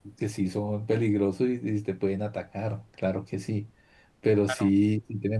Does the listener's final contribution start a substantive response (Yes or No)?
No